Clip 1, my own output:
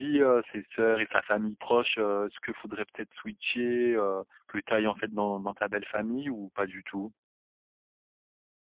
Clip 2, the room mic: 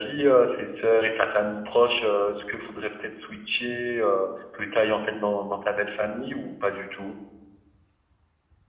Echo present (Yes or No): Yes